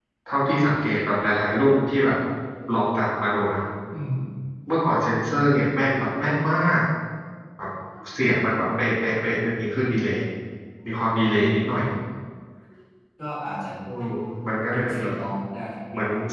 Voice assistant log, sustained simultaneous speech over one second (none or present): none